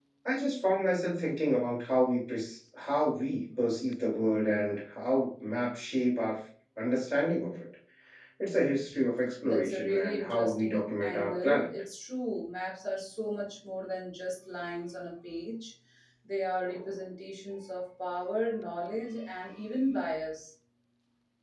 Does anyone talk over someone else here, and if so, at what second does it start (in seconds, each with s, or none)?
9.4 s